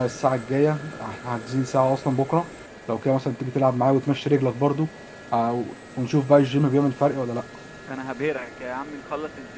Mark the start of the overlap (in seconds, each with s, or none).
none